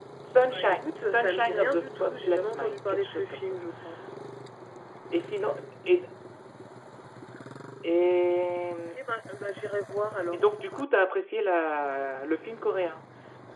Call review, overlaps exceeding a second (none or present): present